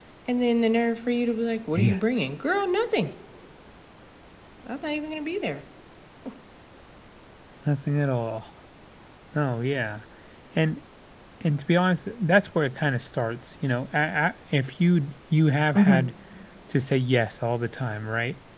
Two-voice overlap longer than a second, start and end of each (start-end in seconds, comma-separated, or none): none